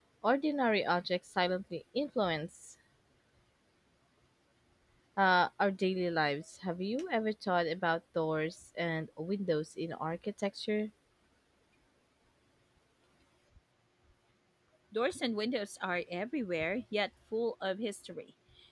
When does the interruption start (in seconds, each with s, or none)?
none